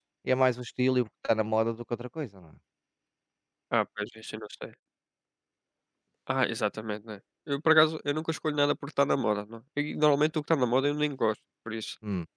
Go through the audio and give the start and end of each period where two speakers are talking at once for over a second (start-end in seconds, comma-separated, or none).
none